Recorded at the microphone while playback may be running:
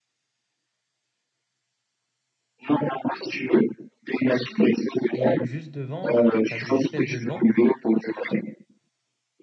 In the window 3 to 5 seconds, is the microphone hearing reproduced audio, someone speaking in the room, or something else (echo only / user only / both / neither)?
echo only